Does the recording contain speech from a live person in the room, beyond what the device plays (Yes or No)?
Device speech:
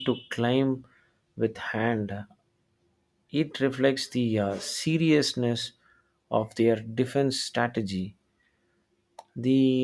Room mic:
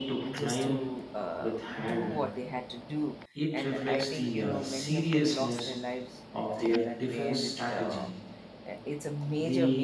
Yes